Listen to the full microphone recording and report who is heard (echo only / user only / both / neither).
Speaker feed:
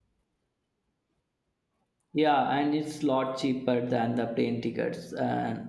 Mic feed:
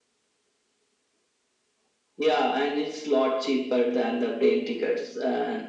echo only